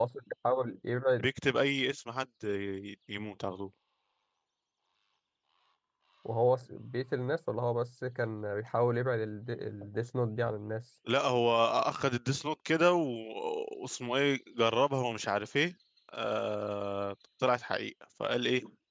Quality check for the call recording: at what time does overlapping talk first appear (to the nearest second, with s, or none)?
none